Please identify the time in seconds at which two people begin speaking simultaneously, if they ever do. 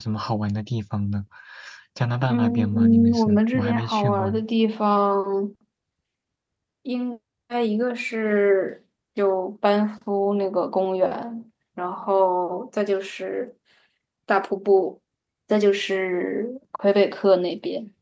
2.3 s

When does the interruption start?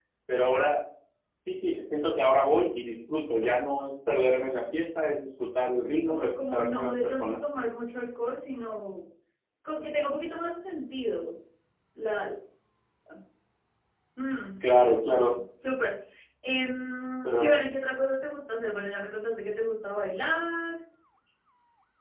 5.9 s

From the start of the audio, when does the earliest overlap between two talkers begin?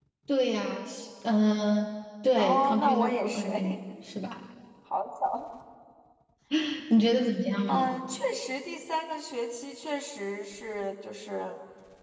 2.4 s

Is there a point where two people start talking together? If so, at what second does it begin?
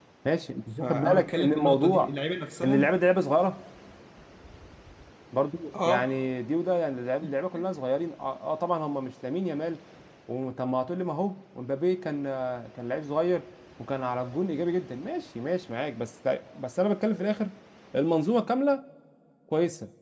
0.8 s

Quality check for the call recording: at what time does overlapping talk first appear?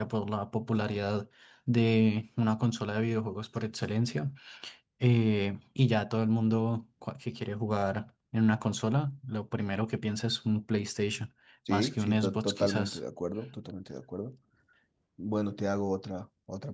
11.7 s

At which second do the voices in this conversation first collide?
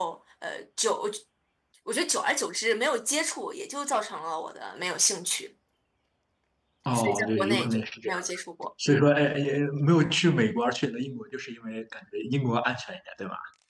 6.9 s

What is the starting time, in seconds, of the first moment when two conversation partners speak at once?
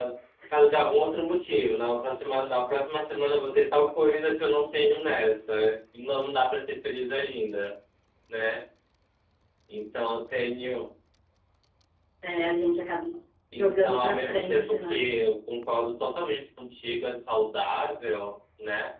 13.5 s

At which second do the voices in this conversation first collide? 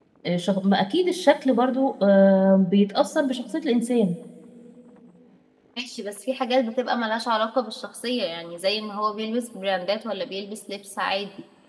none

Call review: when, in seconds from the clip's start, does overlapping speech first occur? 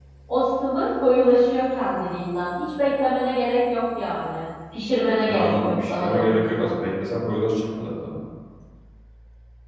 5.3 s

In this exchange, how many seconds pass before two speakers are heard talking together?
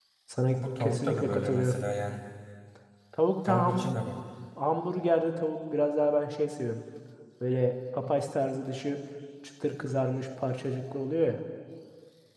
0.5 s

